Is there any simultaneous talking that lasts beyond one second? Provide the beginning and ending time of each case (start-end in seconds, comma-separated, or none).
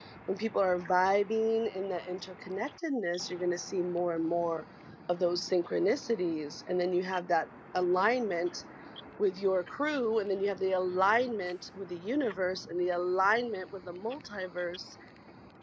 none